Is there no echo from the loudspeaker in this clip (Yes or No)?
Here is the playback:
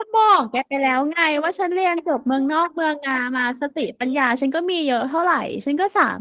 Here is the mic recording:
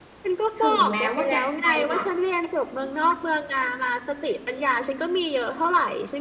No